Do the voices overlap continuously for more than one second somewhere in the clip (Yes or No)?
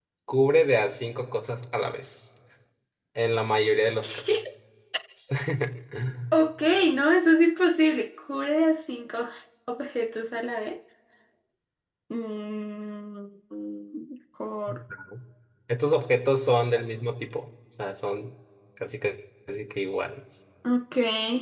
No